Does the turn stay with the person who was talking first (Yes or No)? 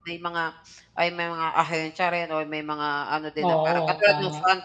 Yes